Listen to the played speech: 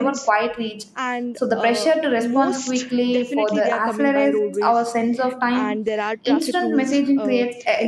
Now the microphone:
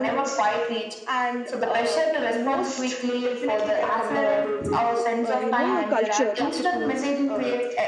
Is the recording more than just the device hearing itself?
Yes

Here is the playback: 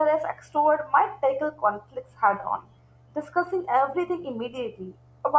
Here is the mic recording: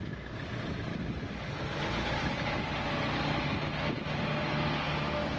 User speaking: No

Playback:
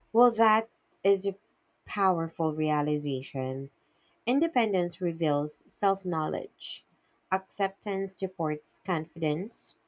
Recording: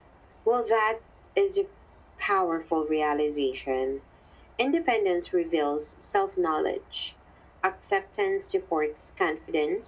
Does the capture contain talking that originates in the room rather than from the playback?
No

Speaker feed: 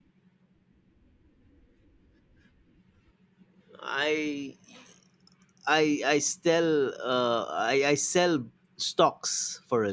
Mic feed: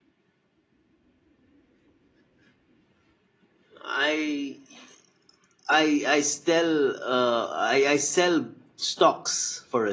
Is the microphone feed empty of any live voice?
Yes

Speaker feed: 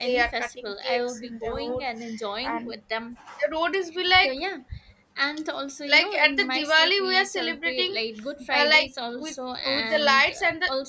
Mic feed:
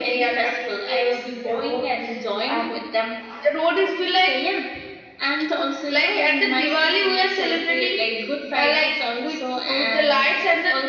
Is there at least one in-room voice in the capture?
No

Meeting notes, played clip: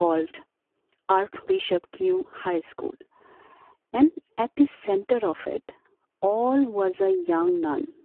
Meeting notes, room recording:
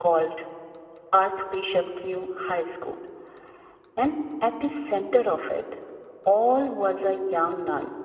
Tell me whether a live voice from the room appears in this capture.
No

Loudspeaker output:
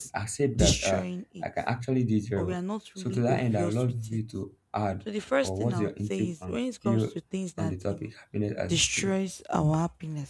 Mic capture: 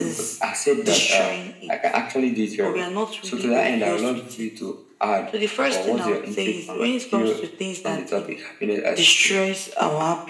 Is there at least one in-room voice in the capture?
No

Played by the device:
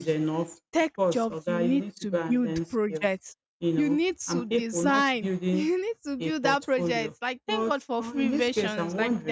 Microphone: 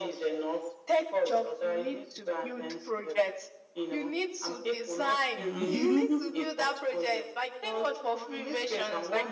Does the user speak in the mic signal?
Yes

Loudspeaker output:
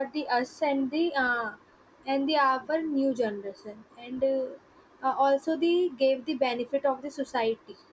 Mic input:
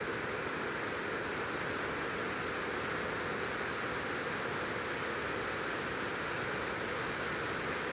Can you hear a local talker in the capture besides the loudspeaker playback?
No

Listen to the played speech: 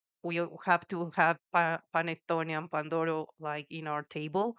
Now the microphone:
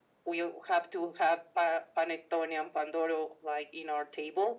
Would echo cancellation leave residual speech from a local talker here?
No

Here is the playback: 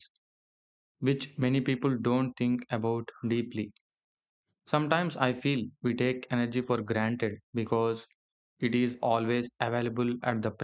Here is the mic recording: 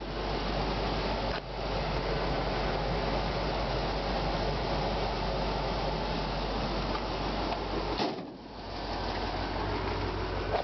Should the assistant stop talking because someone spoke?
No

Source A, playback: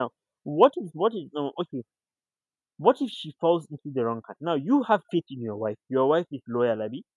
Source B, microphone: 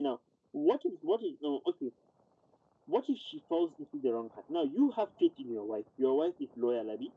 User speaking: No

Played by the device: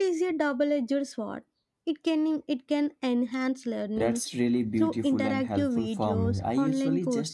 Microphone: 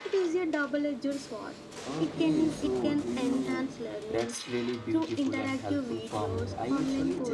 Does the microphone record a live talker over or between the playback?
Yes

